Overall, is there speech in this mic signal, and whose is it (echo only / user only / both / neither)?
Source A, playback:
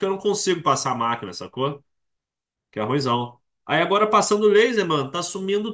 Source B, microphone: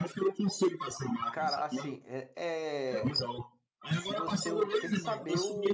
both